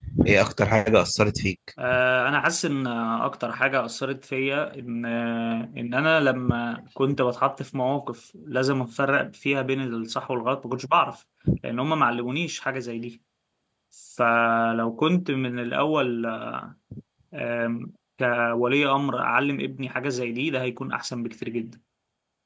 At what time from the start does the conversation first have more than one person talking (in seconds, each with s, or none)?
none